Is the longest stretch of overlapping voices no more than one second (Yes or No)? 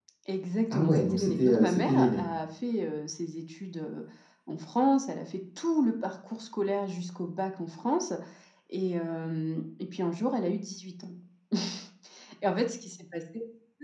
No